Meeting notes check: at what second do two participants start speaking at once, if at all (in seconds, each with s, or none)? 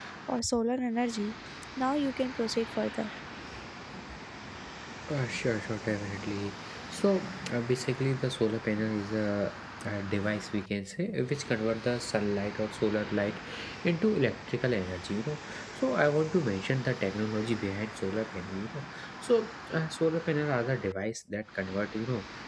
none